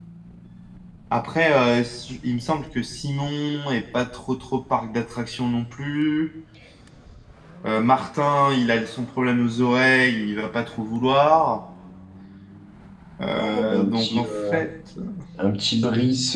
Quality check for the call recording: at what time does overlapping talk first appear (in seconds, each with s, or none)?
13.3 s